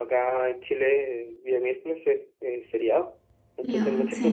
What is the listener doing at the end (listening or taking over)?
listening